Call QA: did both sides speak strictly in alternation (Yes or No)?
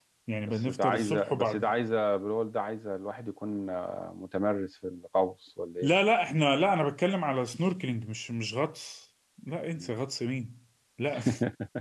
No